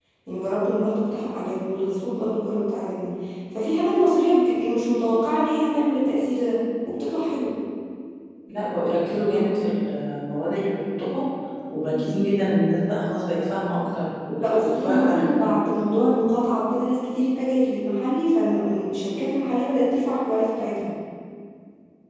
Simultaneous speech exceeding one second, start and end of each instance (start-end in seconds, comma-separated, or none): 14.4-15.7